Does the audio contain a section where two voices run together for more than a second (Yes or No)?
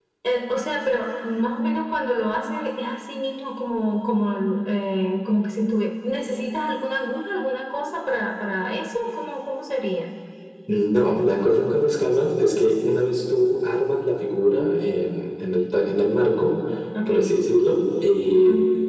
No